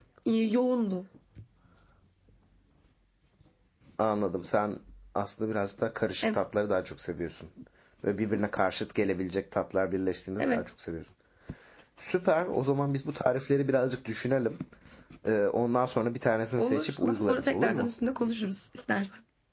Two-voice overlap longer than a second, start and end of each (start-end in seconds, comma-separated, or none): 16.6-17.9